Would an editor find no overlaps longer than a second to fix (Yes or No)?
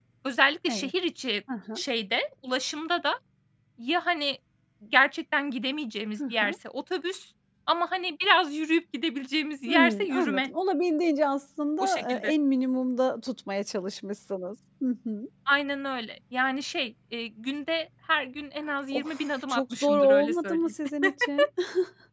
No